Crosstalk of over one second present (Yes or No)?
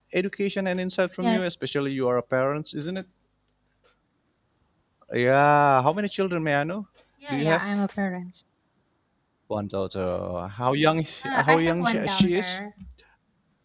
Yes